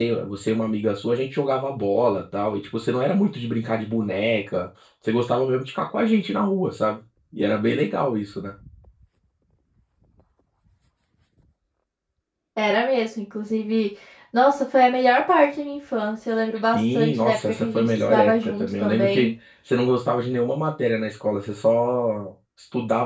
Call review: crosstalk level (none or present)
present